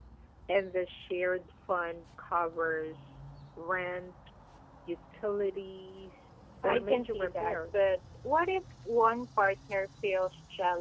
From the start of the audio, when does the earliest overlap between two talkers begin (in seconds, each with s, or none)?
6.6 s